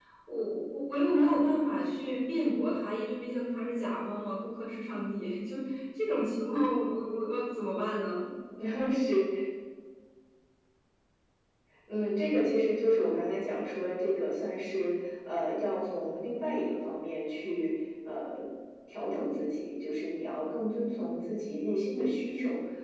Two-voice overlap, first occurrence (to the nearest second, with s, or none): none